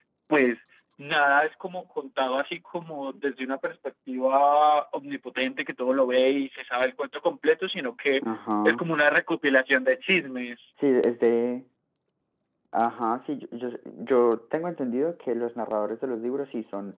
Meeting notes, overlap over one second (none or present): none